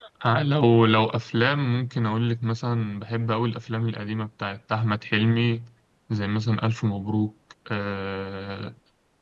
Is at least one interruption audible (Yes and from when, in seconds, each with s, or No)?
No